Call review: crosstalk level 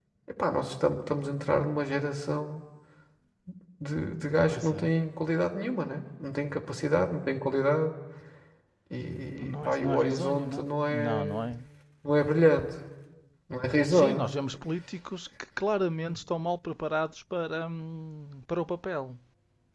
present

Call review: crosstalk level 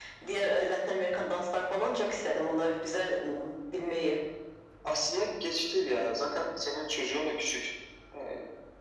none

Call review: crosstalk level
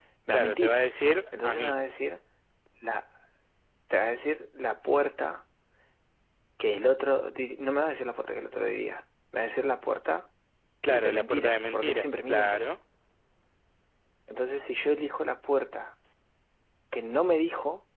present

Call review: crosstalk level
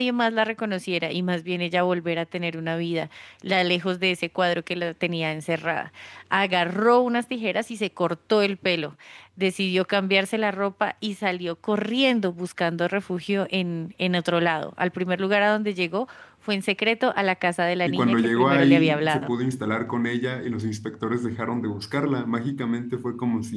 present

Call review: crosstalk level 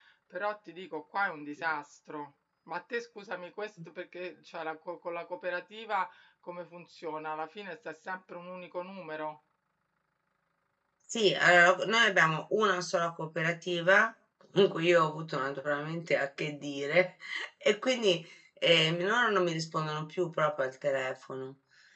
none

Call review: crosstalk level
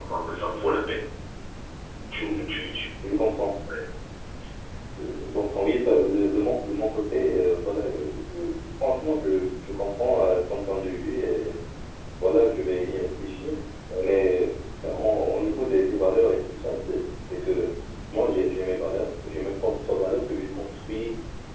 none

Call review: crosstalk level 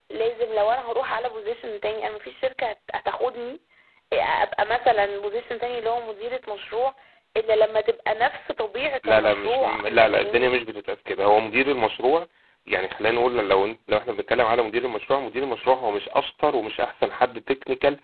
present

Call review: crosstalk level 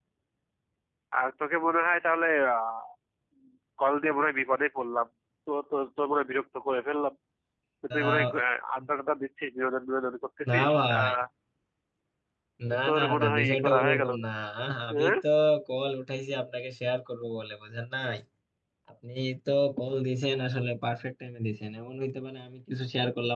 present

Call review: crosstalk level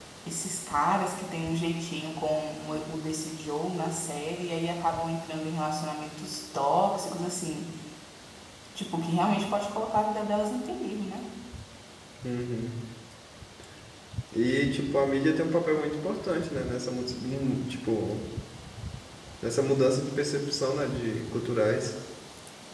none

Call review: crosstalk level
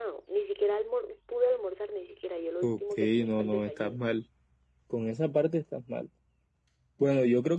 present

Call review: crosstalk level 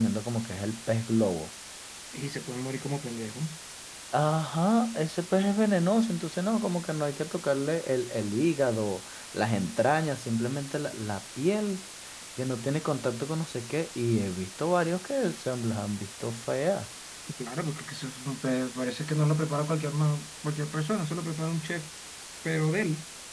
none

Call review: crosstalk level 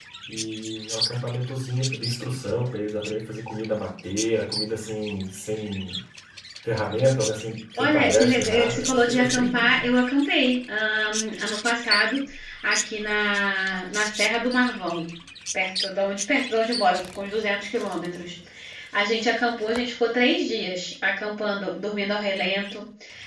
present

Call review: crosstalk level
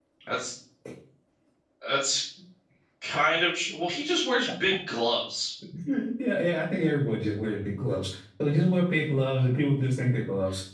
none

